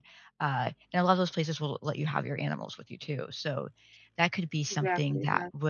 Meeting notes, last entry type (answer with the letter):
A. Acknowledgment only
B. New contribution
A